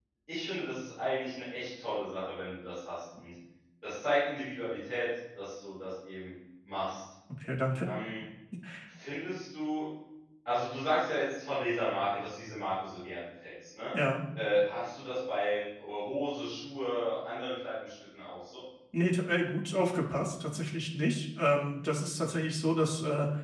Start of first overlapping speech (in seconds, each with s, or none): none